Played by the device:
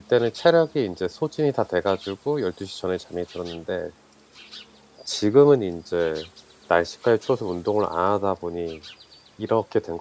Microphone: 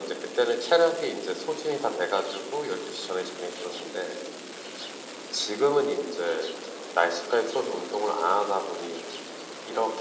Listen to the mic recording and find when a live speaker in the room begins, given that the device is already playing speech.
none

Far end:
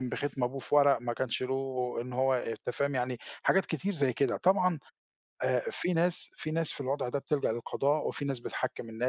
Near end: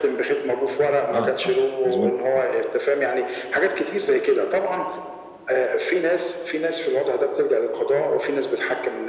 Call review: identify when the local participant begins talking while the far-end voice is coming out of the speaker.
1.1 s

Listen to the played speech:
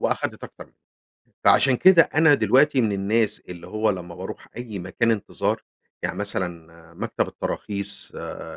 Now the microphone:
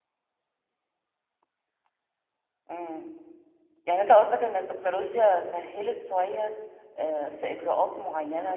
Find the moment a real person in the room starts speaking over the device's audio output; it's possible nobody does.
2.7 s

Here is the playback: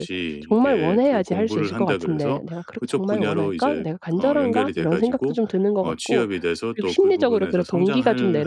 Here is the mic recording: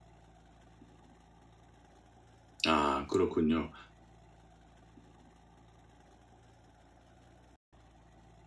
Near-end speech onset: 2.6 s

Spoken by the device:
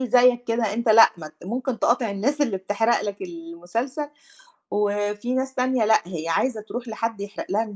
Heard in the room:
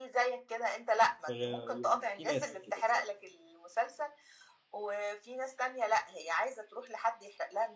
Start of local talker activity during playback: 1.3 s

